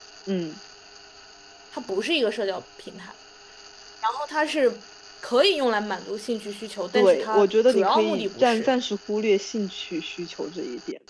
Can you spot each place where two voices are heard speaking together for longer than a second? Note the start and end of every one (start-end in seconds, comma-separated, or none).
6.9-8.7